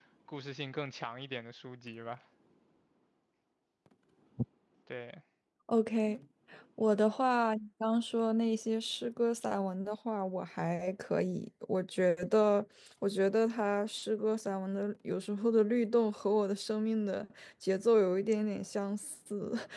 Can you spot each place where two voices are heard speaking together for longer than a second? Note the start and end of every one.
none

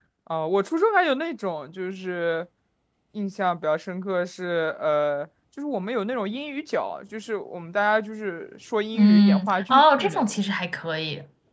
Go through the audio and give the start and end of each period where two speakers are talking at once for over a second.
8.9-10.4

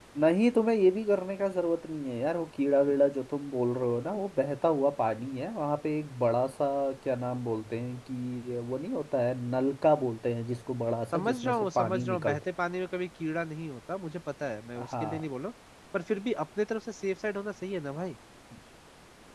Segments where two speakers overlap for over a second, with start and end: 11.1-12.4

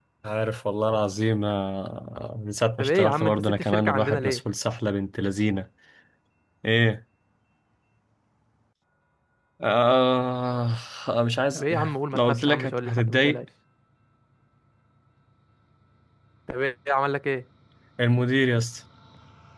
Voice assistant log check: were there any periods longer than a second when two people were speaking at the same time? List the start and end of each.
2.8-4.4, 12.1-13.4

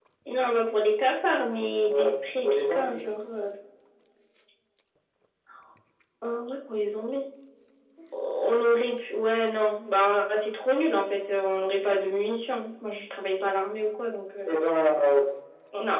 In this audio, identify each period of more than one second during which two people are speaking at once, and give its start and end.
1.8-3.1

